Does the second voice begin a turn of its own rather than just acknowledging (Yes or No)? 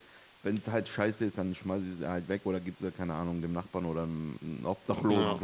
No